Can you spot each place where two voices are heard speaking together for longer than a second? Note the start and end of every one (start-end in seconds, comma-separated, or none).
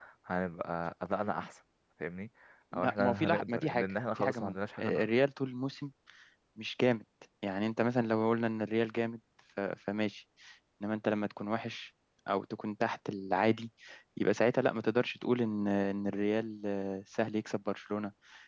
2.7-5.0